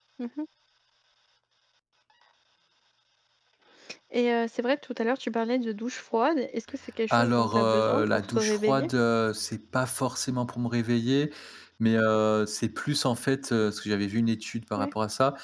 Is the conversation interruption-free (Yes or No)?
No